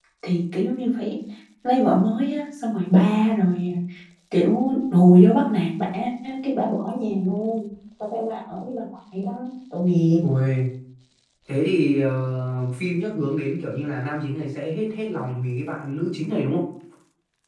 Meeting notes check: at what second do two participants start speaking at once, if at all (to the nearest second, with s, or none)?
none